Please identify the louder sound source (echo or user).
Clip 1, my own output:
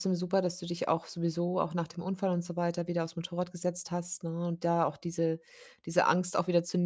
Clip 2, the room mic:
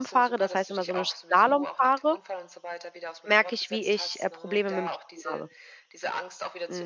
user